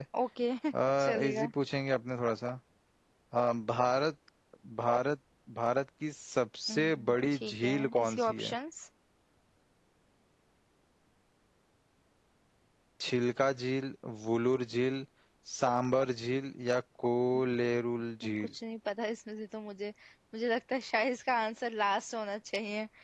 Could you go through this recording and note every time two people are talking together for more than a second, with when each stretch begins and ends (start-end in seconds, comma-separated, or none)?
6.7-8.5